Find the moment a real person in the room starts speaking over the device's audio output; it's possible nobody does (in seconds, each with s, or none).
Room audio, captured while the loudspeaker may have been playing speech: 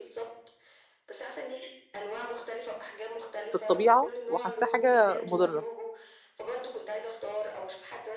3.5 s